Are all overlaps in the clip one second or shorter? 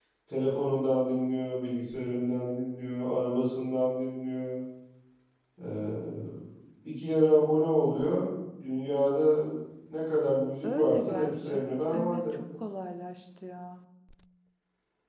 No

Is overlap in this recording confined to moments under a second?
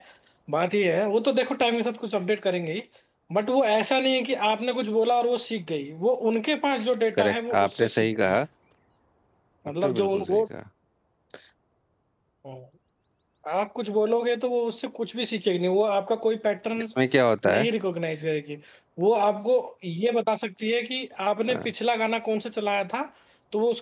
No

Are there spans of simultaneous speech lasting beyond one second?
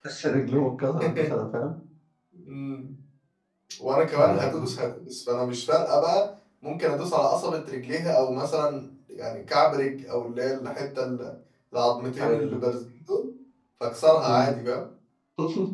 No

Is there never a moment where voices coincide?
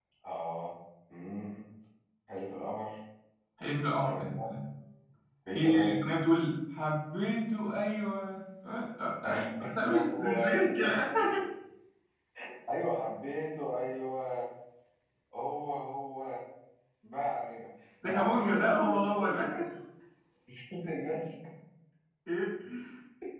No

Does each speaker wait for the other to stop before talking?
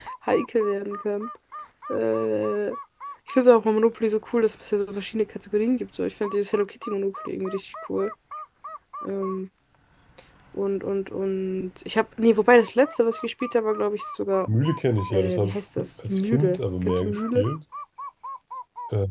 No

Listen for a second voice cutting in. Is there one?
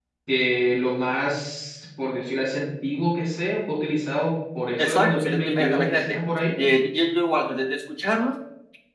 Yes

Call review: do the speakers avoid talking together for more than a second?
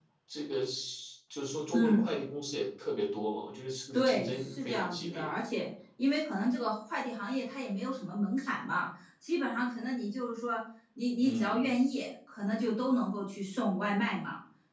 No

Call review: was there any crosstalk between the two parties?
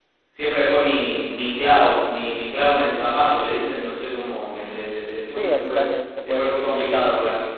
Yes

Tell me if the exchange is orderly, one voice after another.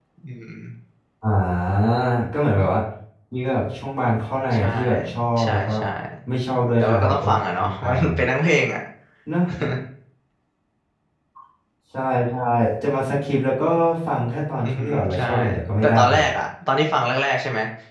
No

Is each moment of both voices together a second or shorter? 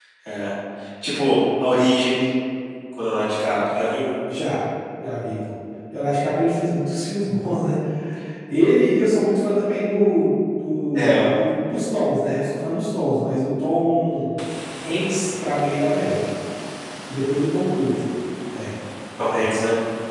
Yes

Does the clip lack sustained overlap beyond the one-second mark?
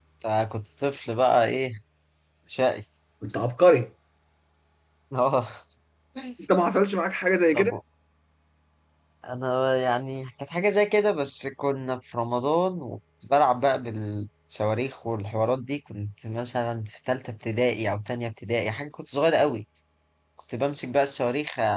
Yes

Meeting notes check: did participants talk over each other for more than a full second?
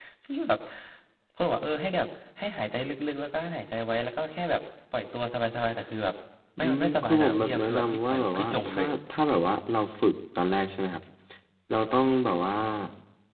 Yes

